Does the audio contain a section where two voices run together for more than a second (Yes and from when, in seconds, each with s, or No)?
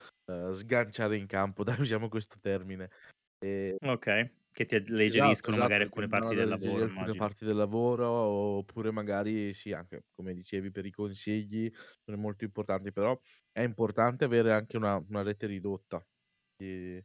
Yes, from 5.1 s